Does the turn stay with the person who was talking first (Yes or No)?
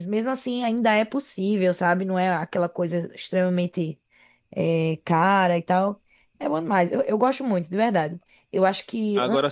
Yes